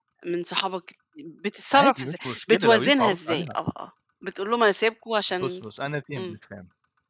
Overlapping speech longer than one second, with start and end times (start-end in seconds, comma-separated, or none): 1.7-3.5